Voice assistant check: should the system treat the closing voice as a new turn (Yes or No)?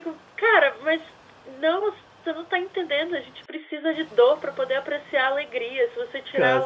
No